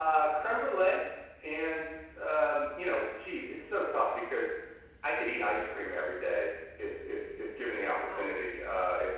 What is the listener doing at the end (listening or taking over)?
listening